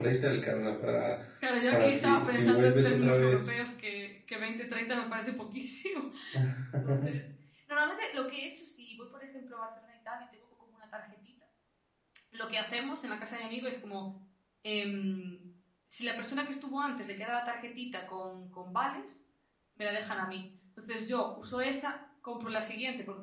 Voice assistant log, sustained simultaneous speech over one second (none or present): present